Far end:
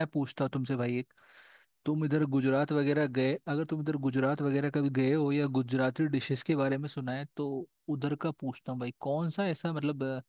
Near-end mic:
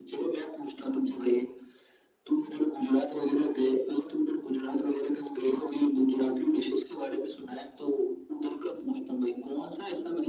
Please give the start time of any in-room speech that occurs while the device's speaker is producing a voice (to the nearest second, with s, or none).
none